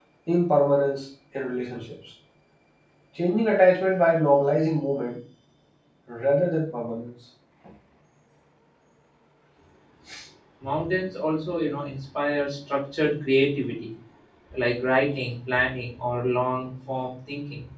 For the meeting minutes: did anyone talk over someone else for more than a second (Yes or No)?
No